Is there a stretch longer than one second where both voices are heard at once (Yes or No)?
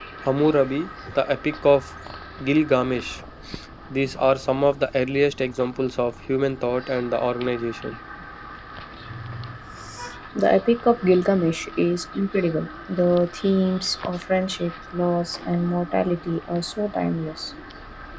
No